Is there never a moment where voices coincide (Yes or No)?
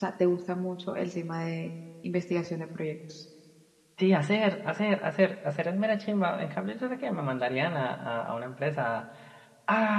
Yes